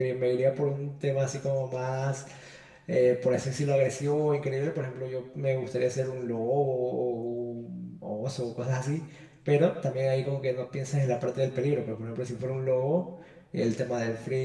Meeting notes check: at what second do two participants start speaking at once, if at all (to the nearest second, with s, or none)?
none